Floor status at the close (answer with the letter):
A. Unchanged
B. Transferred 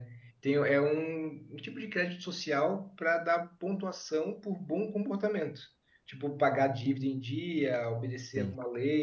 A